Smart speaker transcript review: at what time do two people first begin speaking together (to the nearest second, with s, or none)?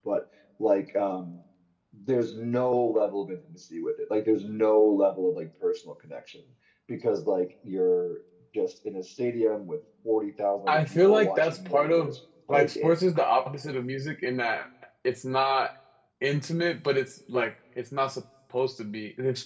11 s